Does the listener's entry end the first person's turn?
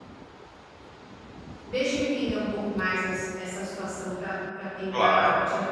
Yes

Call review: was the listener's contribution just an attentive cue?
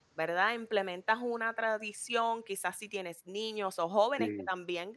Yes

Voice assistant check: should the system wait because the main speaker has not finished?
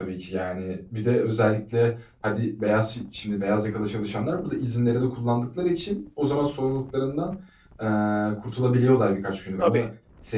Yes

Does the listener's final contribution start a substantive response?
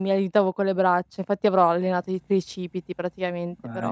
Yes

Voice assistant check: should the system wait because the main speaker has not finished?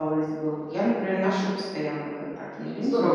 No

